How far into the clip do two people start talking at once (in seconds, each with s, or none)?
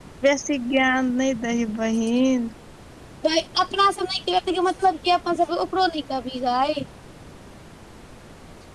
none